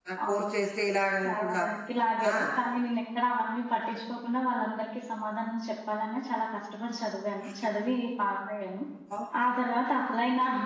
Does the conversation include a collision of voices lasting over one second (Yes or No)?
No